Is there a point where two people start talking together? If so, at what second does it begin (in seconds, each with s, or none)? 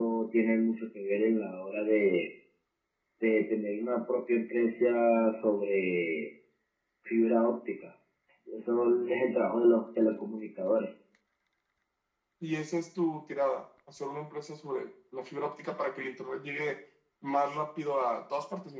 none